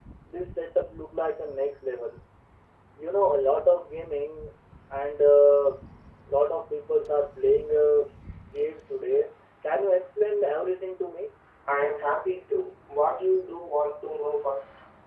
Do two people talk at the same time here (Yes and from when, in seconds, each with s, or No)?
No